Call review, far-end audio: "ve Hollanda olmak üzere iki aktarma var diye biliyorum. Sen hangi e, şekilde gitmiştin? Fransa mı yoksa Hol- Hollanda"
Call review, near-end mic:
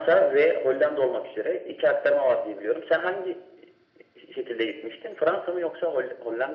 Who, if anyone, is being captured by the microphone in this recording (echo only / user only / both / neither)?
echo only